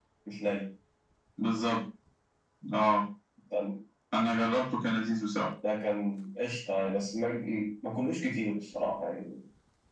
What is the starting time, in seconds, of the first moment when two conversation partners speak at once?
none

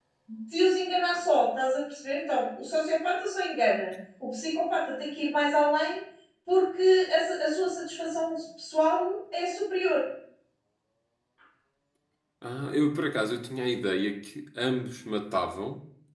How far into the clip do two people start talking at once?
none

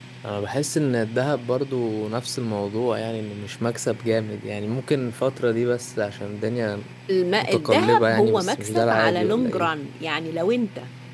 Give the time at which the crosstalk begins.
7.4 s

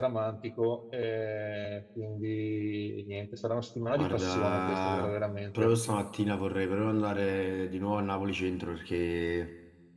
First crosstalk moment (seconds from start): 3.9 s

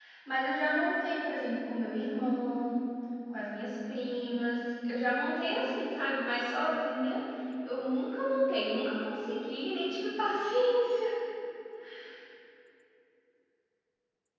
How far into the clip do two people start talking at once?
none

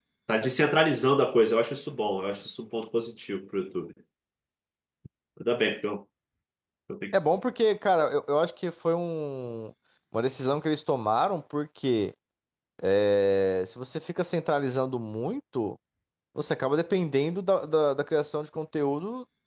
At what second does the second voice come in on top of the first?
none

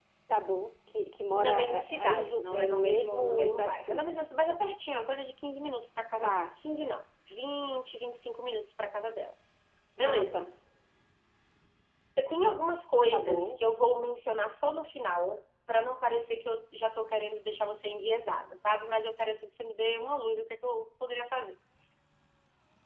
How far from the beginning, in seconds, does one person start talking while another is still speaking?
1.3 s

